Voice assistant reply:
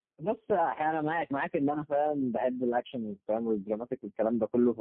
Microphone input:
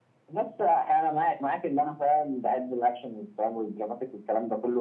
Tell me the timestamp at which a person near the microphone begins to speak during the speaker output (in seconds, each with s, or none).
none